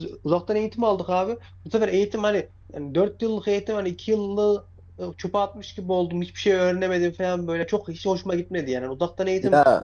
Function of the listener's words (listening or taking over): listening